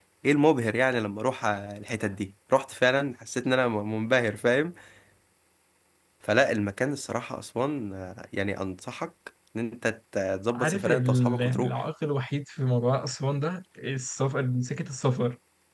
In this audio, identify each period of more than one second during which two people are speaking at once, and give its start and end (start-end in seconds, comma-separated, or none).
10.5-11.8